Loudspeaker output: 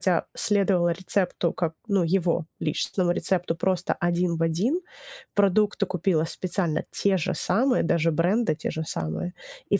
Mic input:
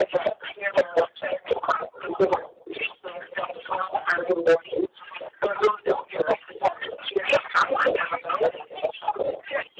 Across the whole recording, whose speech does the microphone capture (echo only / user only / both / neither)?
echo only